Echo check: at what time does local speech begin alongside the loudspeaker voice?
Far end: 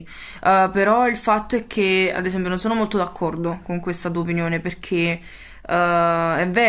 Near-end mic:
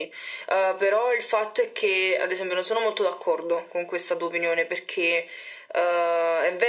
none

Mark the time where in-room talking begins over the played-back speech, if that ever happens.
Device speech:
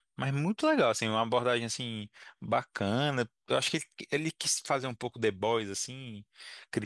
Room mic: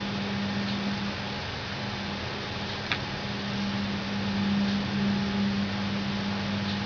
none

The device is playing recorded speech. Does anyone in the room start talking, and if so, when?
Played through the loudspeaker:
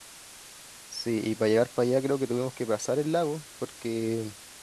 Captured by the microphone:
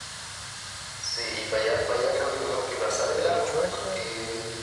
2.8 s

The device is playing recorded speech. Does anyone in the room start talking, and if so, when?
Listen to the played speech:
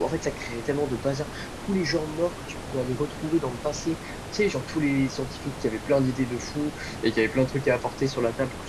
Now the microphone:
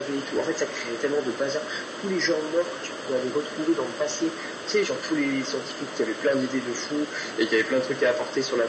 none

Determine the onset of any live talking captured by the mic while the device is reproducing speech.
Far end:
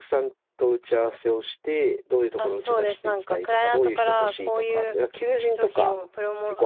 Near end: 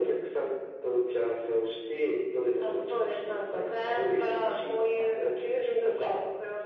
none

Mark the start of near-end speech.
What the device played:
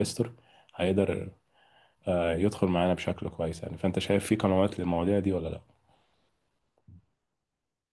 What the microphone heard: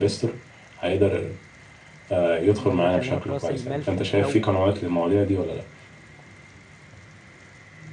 2.5 s

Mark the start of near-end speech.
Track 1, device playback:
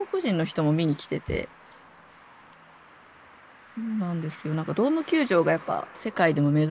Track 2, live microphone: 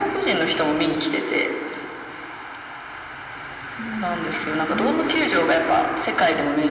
4.7 s

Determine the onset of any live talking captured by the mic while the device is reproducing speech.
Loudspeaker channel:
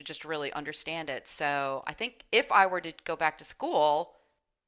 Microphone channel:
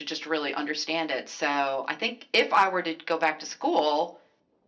none

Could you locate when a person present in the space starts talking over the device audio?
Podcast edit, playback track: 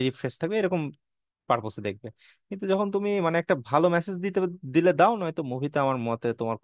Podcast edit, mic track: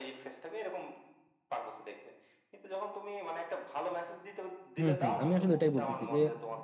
4.8 s

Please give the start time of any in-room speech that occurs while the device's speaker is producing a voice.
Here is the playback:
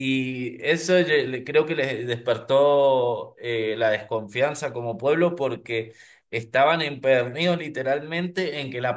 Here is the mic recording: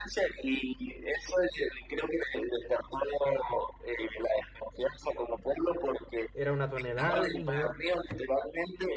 6.3 s

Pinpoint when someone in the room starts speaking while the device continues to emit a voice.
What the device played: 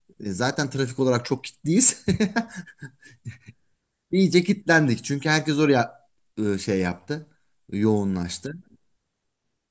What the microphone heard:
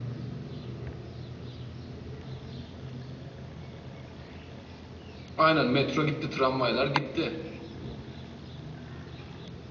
5.4 s

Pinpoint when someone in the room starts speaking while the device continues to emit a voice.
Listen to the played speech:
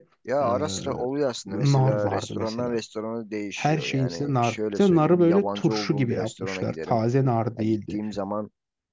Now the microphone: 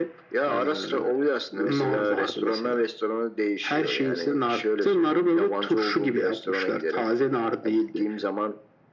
none

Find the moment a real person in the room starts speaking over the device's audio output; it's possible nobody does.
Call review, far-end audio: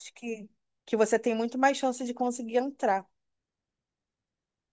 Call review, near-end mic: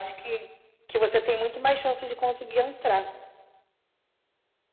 none

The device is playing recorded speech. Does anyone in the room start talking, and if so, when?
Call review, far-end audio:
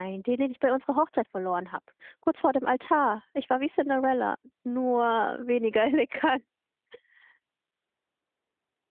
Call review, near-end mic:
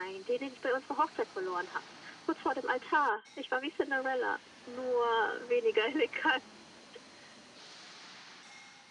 none

